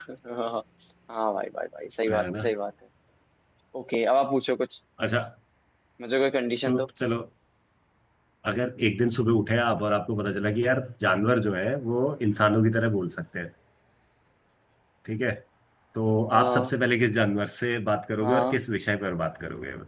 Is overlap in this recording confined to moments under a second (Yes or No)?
Yes